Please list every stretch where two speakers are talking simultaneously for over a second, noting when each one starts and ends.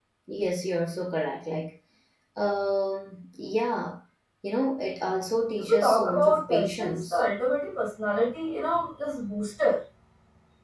5.6-7.2

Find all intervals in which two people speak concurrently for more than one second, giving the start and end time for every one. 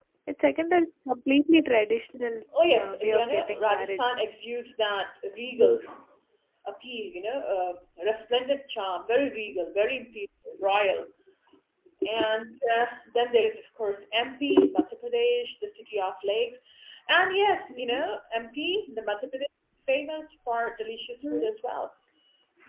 2.7-4.0

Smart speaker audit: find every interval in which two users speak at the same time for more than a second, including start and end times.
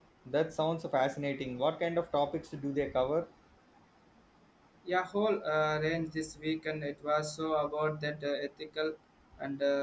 none

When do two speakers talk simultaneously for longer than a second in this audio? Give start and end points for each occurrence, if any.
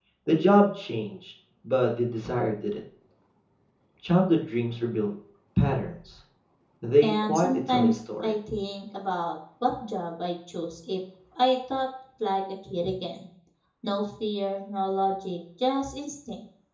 7.0-8.3

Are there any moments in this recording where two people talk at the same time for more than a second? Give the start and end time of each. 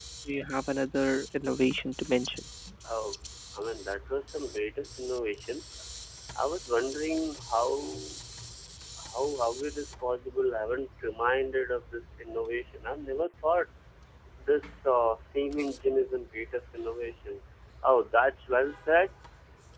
none

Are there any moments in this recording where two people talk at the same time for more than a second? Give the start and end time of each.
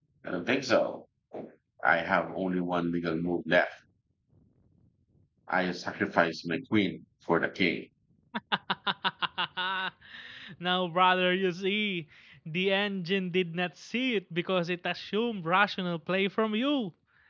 none

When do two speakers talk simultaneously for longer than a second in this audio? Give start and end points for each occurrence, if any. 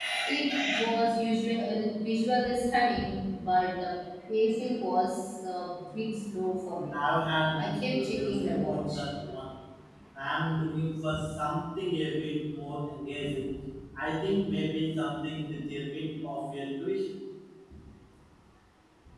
7.5-9.0

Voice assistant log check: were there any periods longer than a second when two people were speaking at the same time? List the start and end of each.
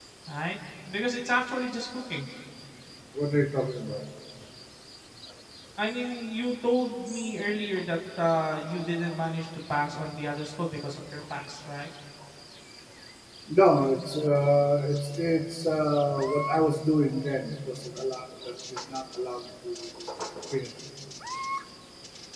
none

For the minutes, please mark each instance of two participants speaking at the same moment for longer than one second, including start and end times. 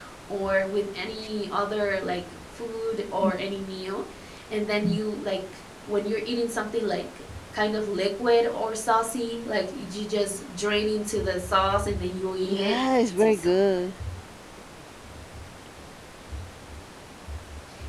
12.4-13.8

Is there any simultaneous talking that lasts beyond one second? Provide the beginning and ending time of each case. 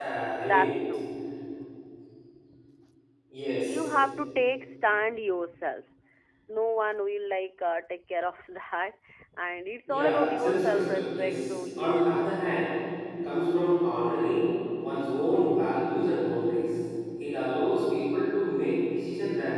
9.9-12.1

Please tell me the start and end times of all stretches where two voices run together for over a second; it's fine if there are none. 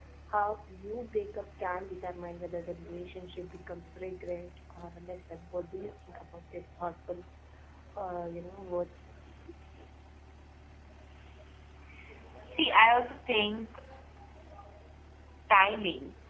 none

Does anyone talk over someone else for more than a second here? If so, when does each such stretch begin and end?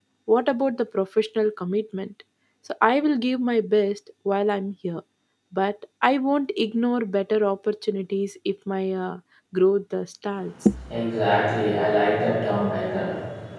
none

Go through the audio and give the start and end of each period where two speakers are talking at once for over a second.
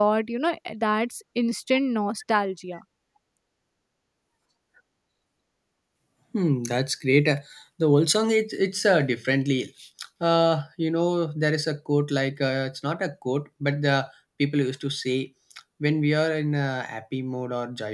none

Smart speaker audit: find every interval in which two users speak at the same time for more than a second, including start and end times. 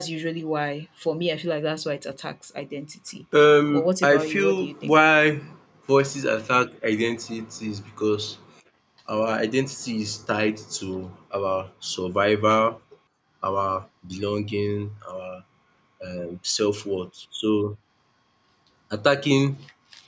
3.7-5.0

